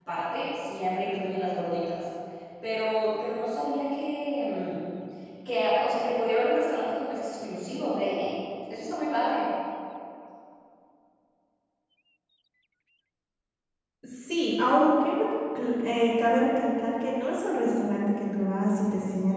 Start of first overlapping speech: none

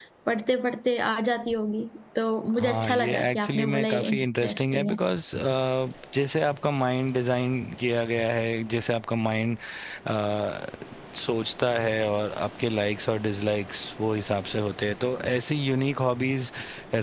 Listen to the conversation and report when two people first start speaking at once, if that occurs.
2.5 s

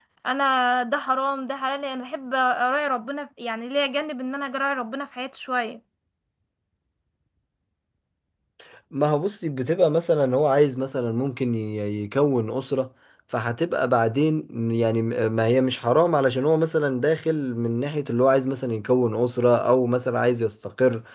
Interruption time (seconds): none

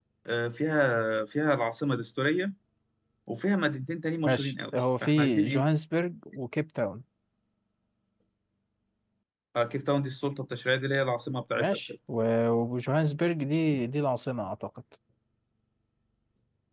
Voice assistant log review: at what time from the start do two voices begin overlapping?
4.2 s

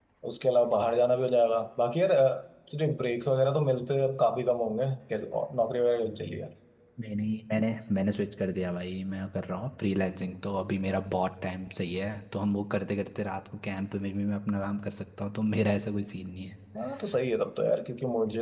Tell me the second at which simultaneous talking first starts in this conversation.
none

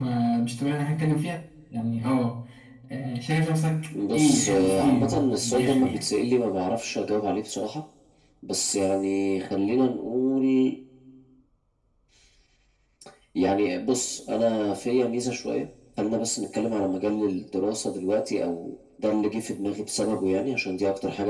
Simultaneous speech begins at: 3.9 s

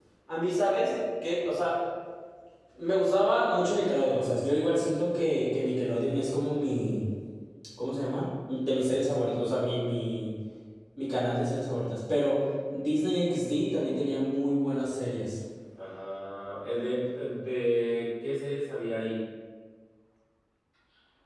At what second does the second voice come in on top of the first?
none

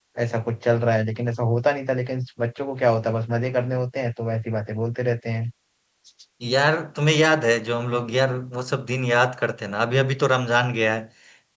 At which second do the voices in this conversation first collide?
none

